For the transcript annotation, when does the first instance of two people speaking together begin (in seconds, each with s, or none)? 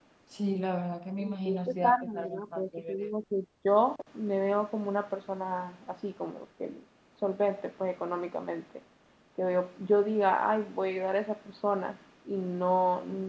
1.4 s